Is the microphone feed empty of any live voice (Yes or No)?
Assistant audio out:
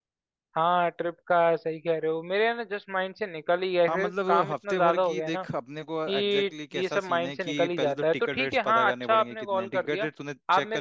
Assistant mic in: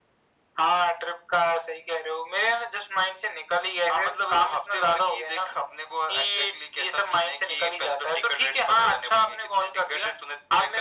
Yes